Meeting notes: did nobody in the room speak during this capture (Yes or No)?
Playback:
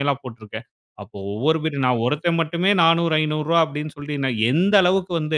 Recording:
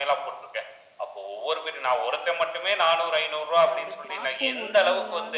No